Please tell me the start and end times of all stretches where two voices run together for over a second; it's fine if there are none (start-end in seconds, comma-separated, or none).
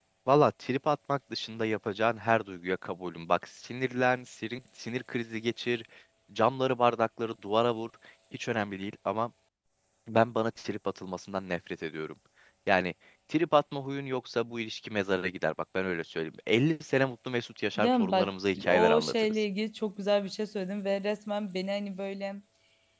17.8-19.3